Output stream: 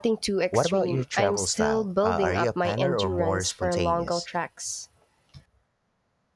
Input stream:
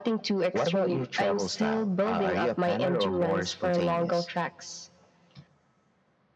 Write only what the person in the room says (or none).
none